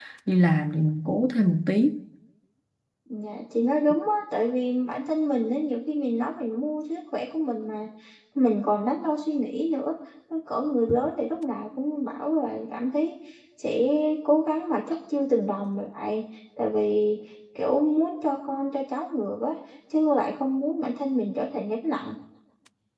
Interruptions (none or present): none